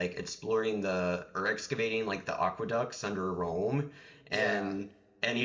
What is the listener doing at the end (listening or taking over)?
listening